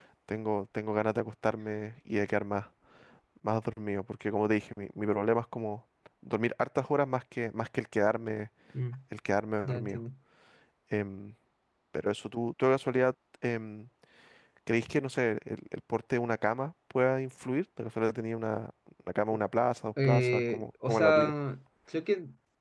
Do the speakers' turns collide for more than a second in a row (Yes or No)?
Yes